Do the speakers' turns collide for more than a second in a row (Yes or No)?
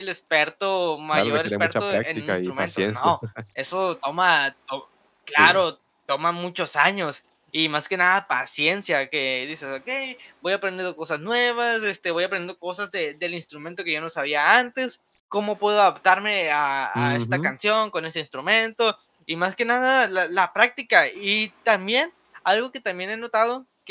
Yes